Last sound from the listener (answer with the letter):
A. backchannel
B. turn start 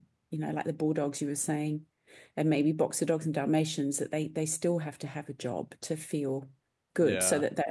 A